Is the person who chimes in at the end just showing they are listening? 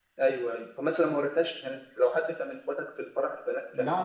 No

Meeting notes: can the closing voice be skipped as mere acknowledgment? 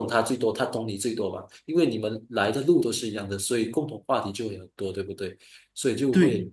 Yes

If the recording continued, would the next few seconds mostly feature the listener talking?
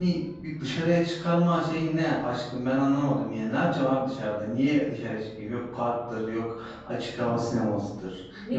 Yes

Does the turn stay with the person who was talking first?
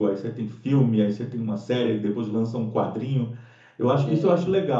Yes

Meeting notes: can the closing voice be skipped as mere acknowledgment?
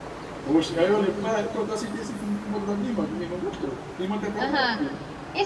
No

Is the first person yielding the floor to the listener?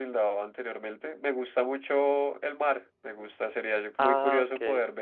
No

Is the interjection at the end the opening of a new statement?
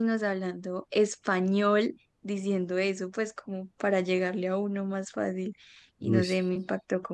No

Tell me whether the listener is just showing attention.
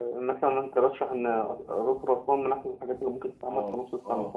No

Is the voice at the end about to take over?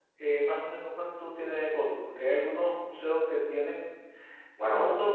No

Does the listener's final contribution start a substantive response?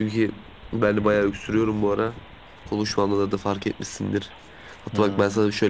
No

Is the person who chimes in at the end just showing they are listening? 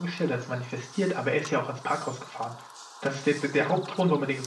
Yes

